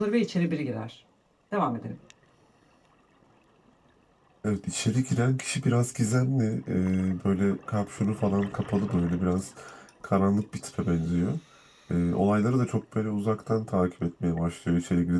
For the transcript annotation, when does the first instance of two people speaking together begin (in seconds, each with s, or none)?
none